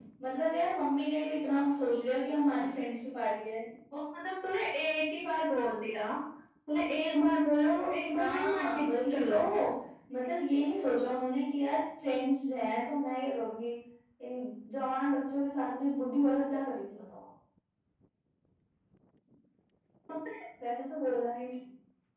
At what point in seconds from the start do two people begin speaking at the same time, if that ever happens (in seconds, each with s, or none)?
8.1 s